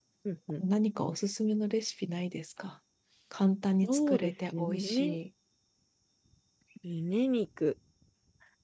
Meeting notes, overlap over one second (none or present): present